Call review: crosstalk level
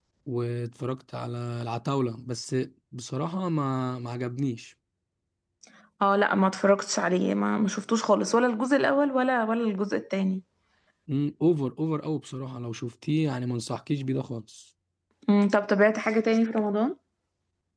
none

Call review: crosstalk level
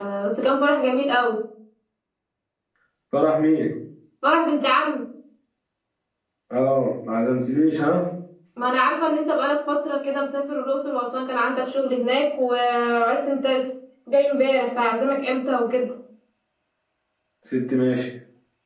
none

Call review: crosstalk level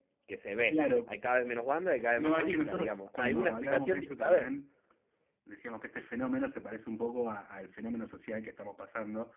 present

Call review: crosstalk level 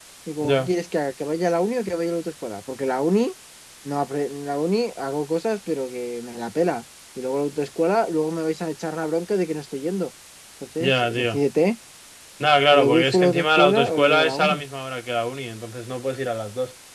present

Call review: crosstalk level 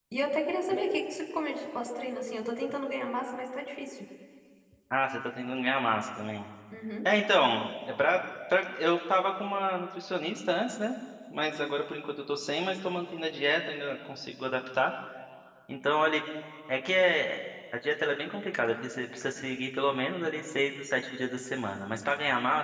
none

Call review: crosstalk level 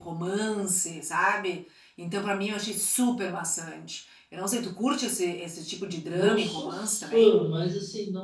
present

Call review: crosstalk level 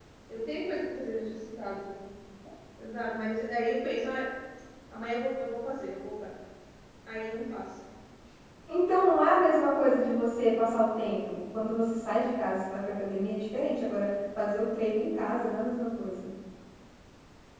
none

